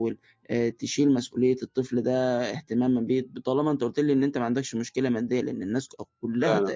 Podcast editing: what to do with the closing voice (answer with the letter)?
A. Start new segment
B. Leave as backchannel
B